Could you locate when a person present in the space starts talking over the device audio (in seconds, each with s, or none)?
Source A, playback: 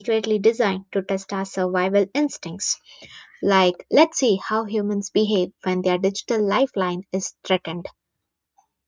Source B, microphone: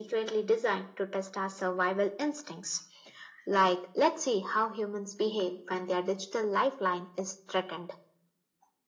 none